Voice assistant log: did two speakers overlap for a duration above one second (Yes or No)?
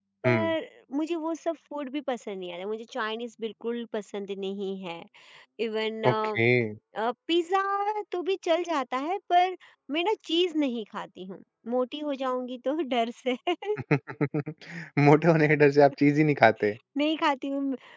No